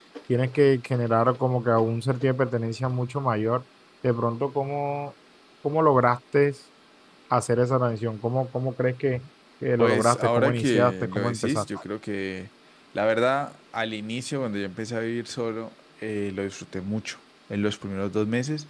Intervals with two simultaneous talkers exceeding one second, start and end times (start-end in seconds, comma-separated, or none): 9.8-11.8